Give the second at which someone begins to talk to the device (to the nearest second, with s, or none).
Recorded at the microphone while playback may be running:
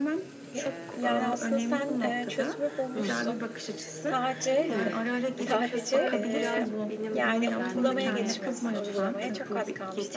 1 s